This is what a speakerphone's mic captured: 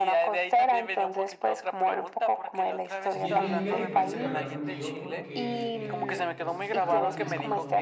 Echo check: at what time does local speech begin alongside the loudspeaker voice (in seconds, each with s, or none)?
3.1 s